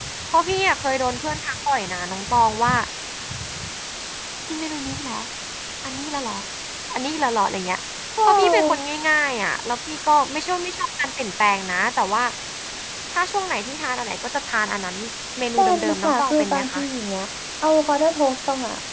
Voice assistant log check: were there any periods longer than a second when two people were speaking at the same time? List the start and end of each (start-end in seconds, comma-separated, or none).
15.6-16.8